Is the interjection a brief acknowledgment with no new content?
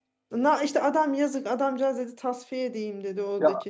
Yes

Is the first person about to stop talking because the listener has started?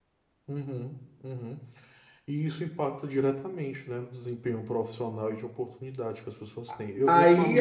Yes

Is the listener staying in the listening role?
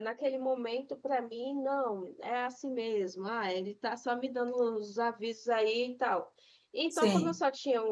Yes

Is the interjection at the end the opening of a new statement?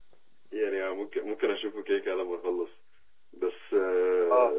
No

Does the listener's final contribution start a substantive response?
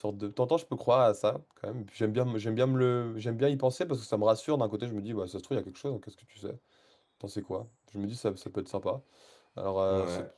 No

